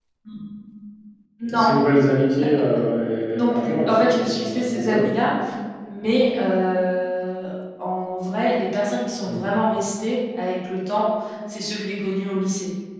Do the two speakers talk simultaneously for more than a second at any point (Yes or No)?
Yes